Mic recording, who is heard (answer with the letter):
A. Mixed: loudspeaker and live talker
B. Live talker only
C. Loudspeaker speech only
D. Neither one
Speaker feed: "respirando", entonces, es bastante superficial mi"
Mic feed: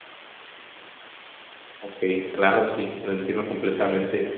B